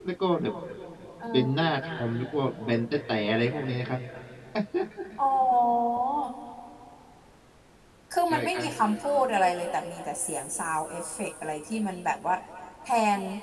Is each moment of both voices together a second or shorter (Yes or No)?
Yes